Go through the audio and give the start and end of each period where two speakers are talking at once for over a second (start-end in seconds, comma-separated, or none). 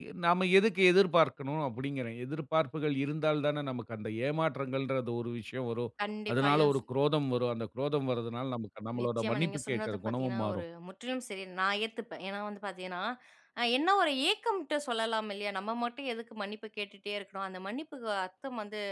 9.0-10.6